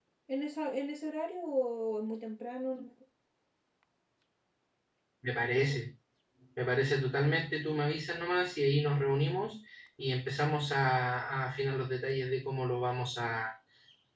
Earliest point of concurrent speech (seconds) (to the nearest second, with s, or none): none